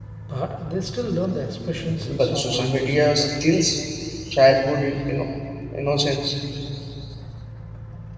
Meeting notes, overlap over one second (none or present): present